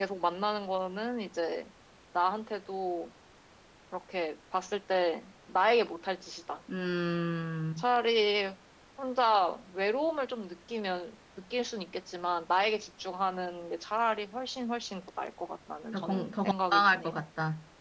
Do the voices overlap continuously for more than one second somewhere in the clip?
Yes, from 15.9 s

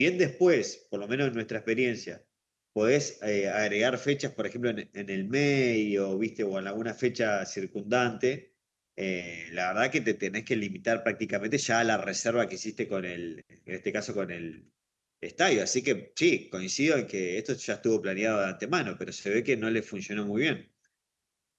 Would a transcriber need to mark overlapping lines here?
No

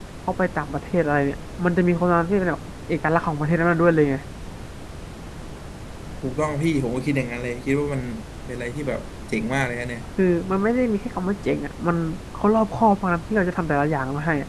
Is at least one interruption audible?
No

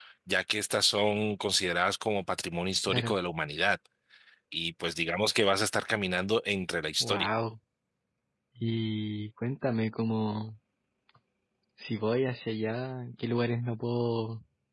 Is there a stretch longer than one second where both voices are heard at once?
No

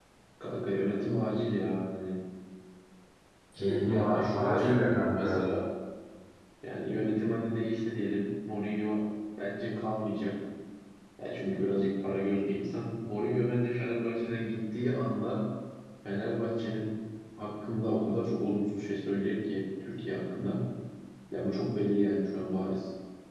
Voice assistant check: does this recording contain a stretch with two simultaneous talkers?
Yes, from 3.6 s

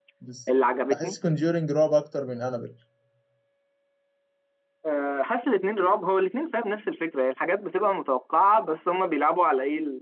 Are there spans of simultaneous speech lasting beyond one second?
No

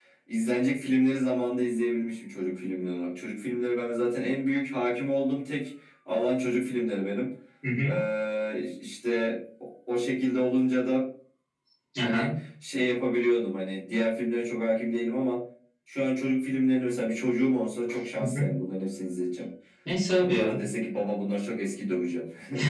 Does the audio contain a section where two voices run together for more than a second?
No

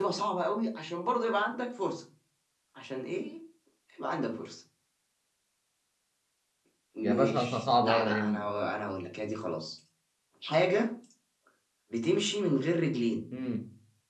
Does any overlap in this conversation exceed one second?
Yes, from 7.0 s

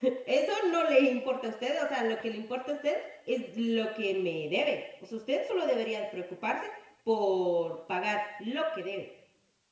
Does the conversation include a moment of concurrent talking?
No

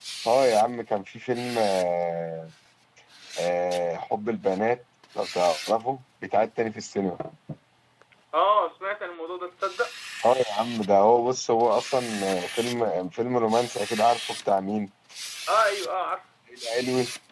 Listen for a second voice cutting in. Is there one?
No

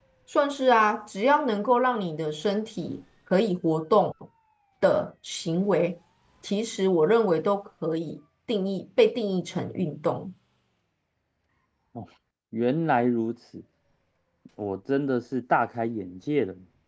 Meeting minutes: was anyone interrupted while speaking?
No

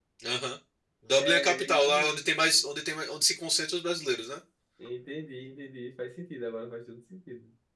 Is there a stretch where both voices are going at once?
Yes, from 1.2 s

